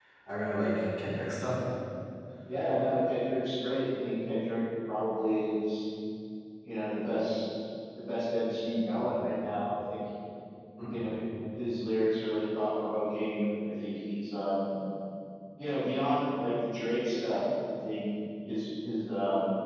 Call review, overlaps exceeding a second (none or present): none